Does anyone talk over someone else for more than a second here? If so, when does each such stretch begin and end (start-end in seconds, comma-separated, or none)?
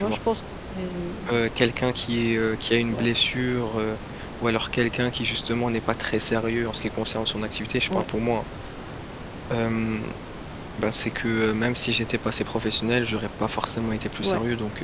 none